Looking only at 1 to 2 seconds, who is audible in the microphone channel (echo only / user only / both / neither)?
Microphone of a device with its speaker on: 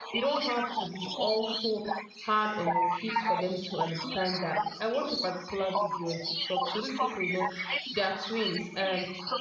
both